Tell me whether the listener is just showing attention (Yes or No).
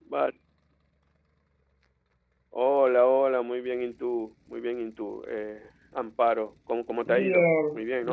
No